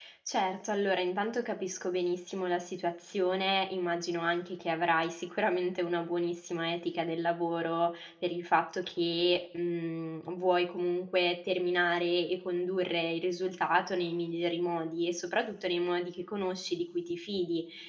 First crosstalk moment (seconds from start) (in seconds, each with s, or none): none